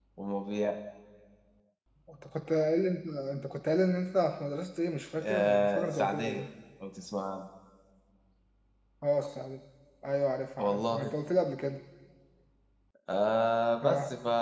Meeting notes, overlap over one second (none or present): present